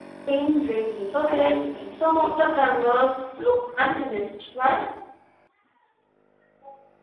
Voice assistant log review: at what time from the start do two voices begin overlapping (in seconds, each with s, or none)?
1.1 s